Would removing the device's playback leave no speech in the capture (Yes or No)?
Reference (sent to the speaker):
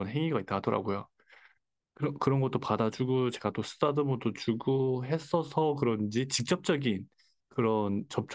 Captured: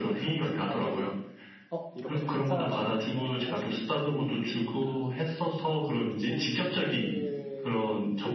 No